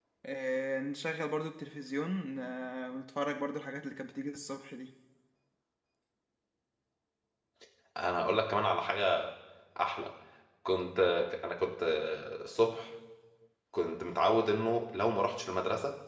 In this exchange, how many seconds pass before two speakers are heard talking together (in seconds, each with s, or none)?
none